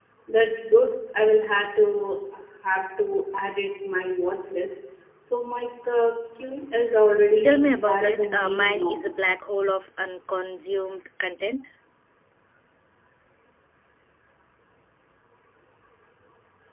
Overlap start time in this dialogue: 7 s

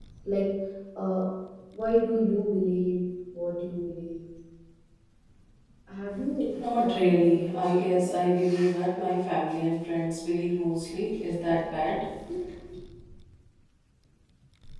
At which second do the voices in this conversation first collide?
7 s

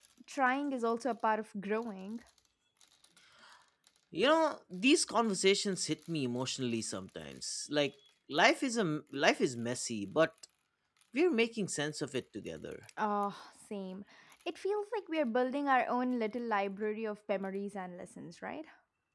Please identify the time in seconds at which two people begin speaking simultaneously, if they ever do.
none

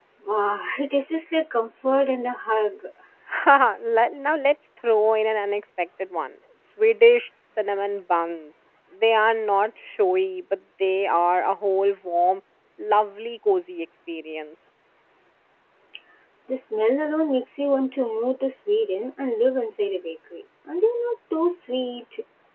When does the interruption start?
none

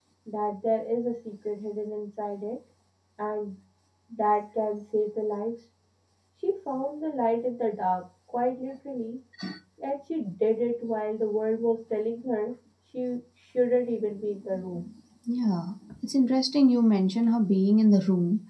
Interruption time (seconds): none

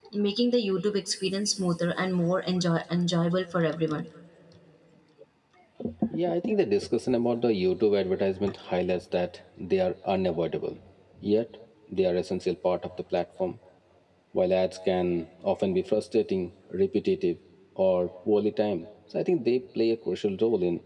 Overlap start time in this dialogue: none

